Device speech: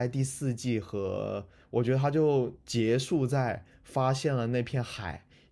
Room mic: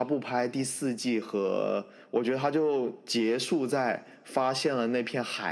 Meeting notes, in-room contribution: none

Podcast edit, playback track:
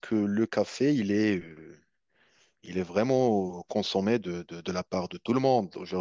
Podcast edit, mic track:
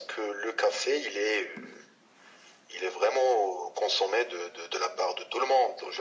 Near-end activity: none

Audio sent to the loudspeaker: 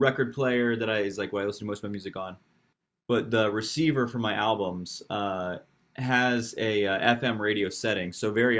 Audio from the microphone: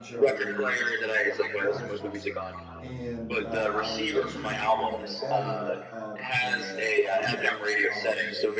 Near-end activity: present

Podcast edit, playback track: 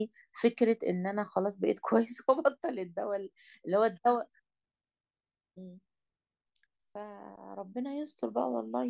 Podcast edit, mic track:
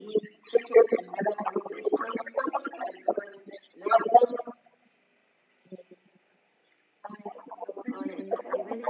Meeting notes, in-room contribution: present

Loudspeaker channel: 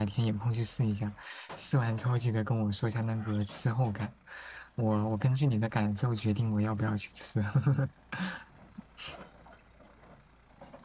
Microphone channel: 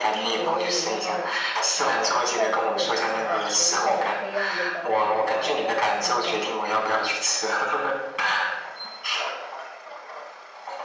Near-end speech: present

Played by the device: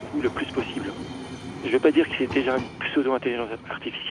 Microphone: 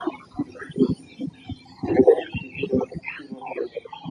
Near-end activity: none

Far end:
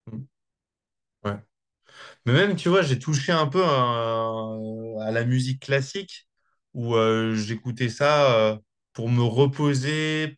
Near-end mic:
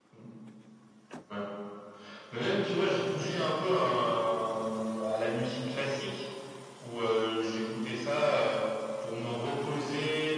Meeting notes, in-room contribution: none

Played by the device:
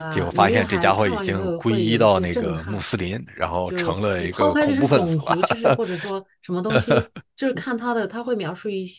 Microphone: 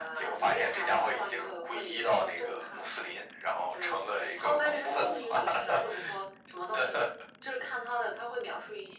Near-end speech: present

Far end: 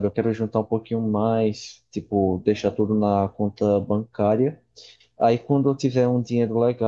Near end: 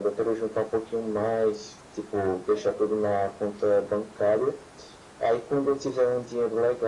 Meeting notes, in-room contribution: none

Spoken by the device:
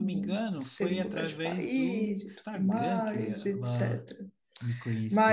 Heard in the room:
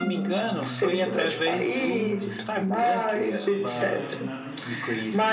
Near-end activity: present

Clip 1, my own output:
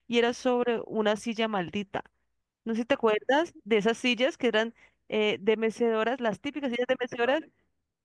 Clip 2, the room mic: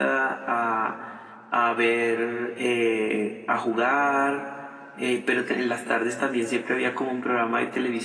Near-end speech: present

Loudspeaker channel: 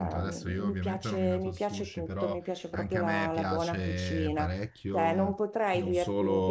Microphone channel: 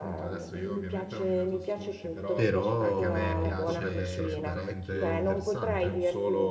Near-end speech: present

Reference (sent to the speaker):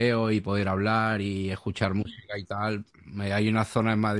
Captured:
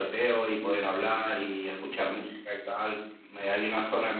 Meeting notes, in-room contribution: none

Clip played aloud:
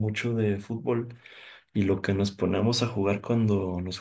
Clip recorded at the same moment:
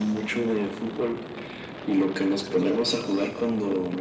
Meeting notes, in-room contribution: none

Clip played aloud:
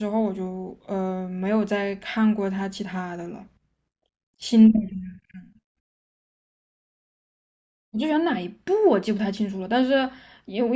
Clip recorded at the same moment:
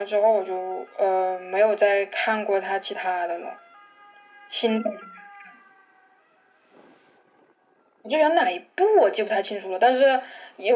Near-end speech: none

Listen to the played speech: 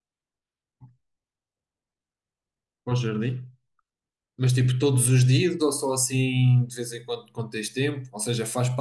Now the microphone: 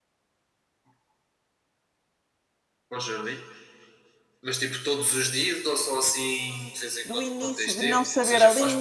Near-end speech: present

